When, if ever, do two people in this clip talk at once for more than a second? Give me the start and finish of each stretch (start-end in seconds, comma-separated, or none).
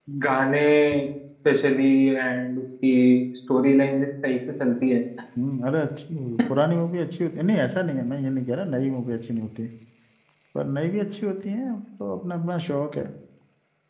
none